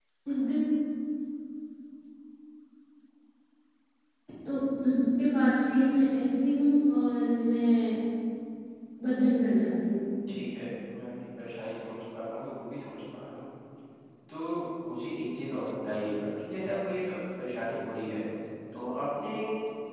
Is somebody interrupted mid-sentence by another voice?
No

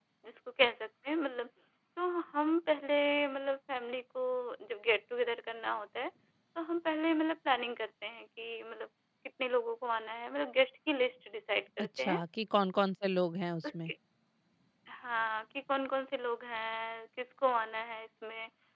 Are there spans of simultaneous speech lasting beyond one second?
No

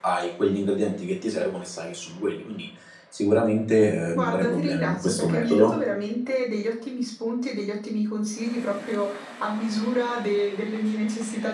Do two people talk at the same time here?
Yes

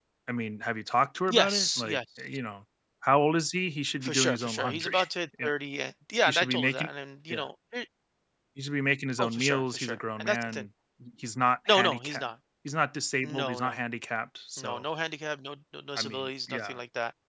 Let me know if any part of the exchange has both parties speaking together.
Yes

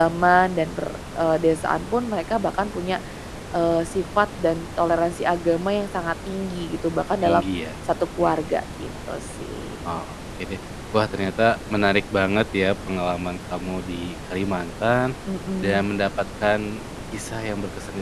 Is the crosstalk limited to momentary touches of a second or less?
Yes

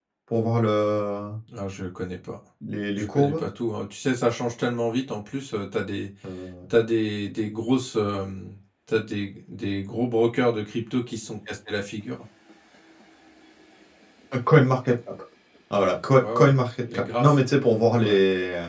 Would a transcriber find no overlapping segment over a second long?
Yes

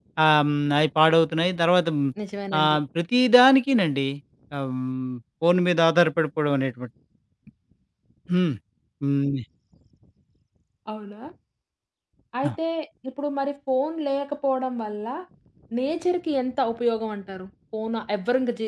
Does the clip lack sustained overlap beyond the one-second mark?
Yes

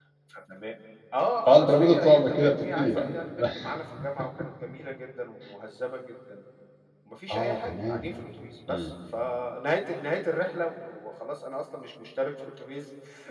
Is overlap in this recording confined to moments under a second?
No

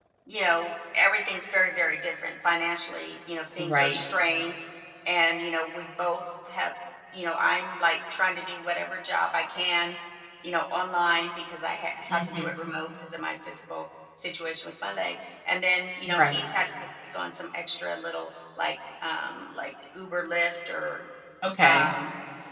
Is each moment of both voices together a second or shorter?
Yes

